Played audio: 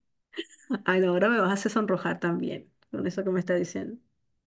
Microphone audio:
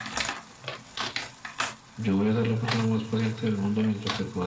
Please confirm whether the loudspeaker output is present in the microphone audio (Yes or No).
No